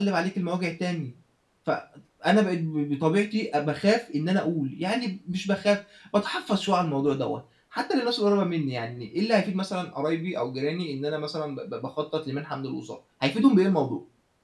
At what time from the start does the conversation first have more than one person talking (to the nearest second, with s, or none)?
none